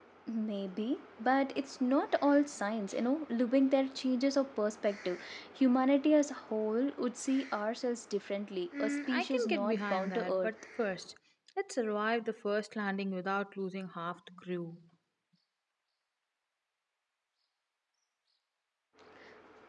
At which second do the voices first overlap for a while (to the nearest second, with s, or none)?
9 s